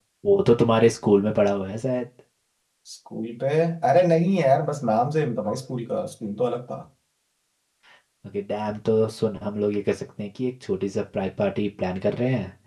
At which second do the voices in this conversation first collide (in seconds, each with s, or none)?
none